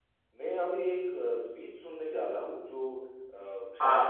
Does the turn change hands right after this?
No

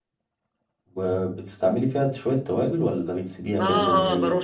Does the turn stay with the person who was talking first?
No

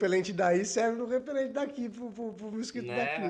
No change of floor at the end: No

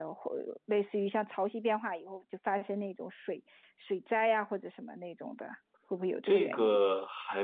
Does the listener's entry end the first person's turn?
Yes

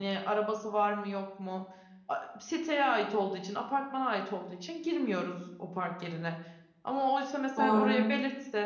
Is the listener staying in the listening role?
Yes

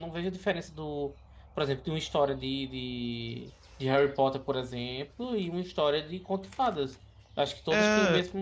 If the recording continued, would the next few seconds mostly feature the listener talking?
No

